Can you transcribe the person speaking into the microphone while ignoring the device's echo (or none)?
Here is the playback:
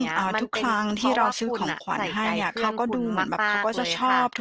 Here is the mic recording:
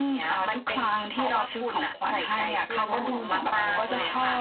และอันดับต่อไปอะค่ะ